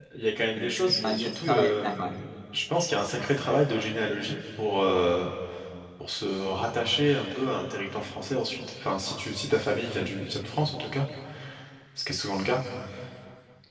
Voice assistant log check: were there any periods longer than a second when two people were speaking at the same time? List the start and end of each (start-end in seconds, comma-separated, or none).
0.5-2.2